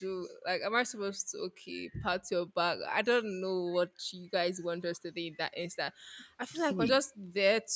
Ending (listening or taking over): listening